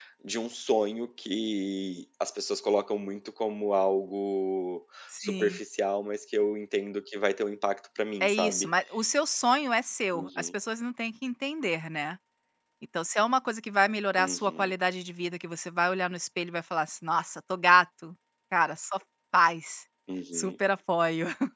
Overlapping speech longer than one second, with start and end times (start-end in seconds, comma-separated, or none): none